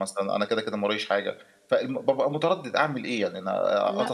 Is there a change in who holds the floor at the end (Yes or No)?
No